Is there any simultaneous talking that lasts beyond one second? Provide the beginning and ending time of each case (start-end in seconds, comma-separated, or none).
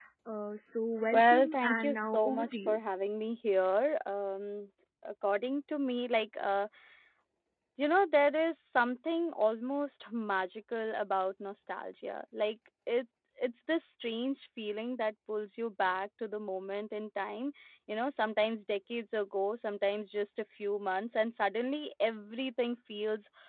1.1-2.8